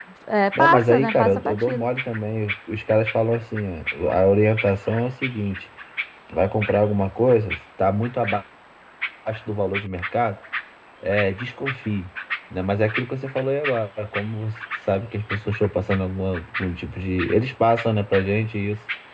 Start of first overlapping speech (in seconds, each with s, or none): 0.6 s